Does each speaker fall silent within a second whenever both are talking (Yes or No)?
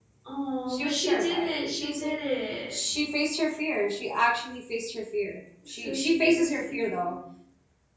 No